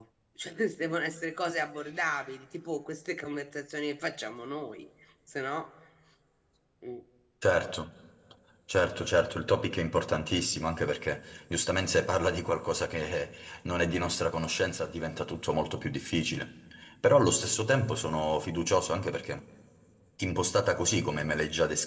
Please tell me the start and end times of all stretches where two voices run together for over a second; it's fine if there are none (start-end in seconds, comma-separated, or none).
none